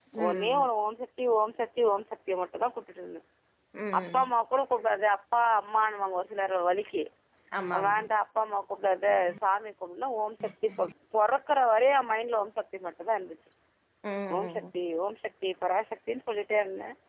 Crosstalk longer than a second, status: none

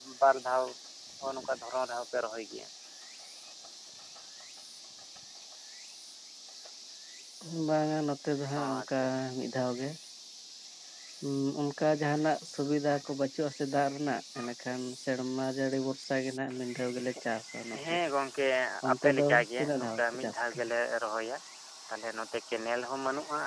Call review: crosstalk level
present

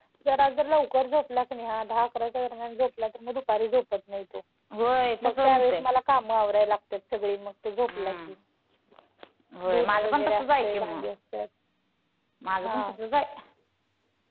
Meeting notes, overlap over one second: present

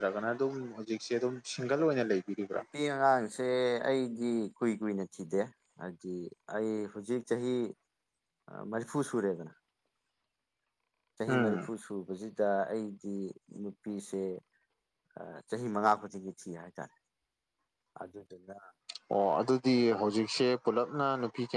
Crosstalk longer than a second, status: none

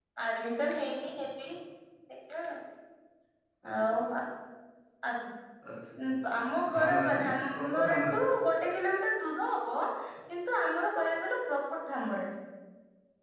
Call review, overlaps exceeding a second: present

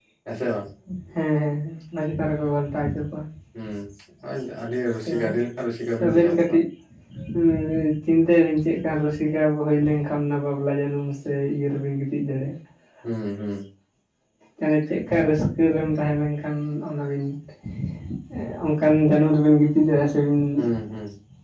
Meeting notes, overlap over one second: none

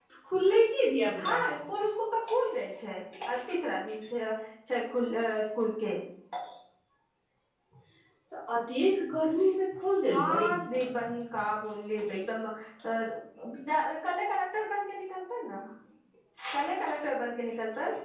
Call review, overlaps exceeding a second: none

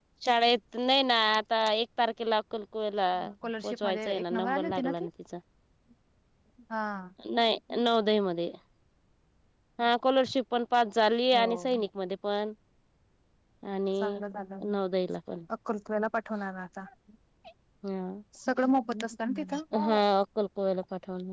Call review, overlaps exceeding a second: present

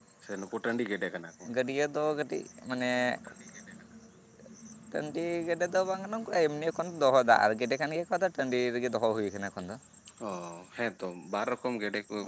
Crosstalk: none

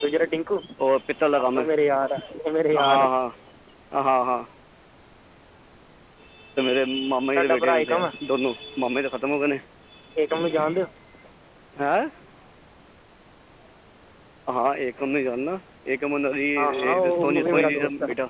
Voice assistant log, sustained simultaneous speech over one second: present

